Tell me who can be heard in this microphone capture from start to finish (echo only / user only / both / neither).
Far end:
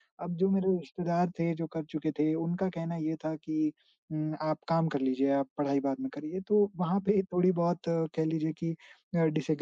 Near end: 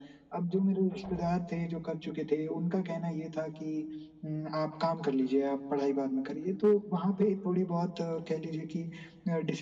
echo only